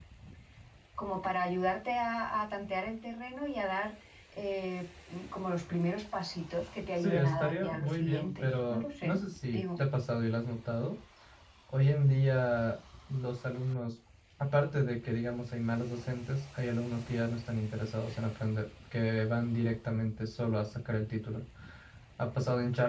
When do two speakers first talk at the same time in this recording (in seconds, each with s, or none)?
7.0 s